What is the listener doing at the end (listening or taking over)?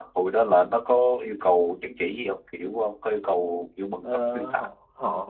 taking over